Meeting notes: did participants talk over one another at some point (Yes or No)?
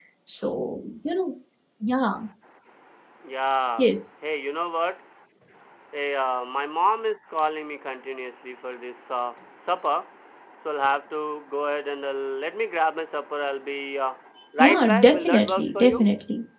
Yes